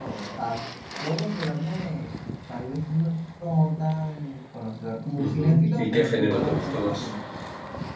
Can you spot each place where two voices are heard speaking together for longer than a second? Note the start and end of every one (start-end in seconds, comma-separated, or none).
5.2-7.1